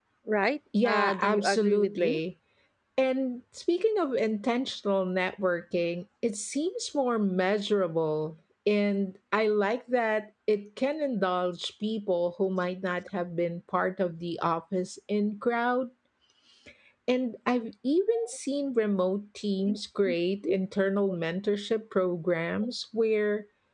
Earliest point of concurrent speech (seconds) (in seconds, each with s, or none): 0.8 s